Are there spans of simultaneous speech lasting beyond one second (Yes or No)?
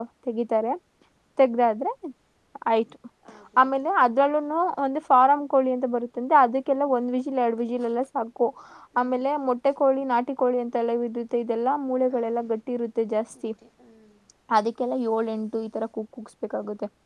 No